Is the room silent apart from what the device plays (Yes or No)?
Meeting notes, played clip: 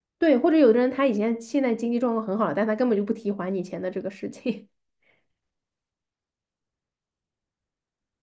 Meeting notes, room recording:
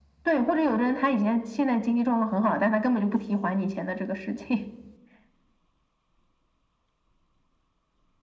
Yes